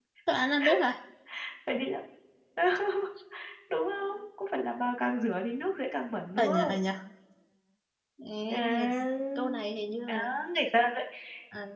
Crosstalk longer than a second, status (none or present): none